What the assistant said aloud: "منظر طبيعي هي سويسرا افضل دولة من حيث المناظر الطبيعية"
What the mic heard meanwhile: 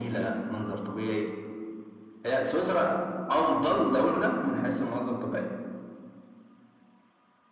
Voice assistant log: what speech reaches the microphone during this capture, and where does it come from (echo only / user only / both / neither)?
echo only